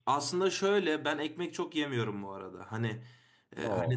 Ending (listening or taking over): listening